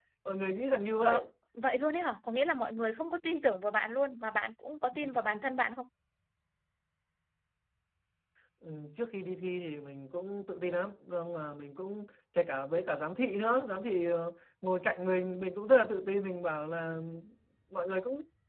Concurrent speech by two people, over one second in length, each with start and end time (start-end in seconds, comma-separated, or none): none